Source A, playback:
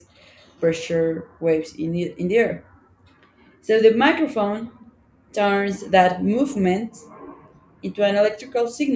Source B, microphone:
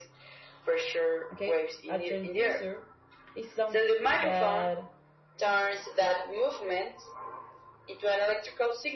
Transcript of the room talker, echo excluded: Okay, a transducer is something that

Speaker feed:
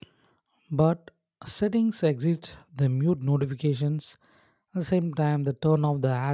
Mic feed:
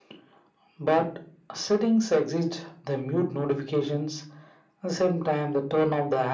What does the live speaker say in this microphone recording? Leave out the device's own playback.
none

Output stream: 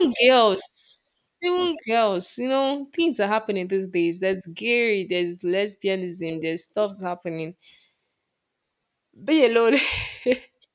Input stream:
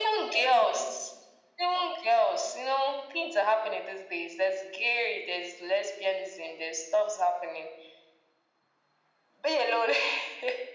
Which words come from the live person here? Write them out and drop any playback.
none

